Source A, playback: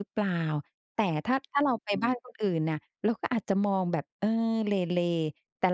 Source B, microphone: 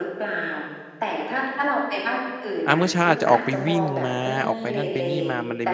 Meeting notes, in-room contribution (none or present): present